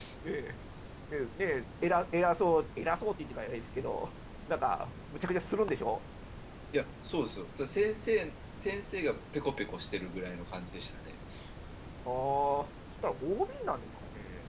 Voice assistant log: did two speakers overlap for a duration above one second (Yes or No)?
No